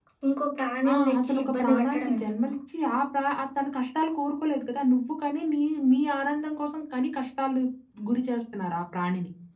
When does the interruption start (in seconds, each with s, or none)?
0.9 s